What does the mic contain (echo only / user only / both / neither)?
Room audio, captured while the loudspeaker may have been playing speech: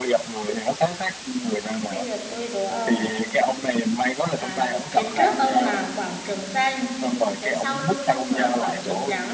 both